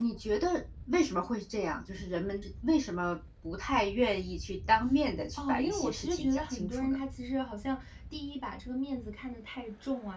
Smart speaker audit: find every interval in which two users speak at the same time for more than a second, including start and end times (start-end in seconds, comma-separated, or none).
5.4-7.0